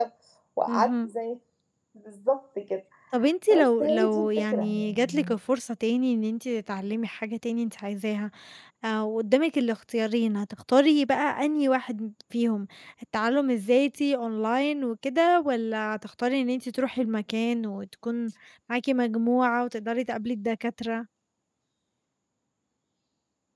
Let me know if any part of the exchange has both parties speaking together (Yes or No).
Yes